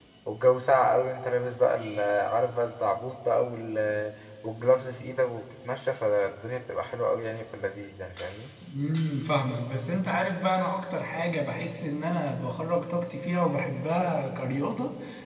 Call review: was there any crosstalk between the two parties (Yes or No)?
No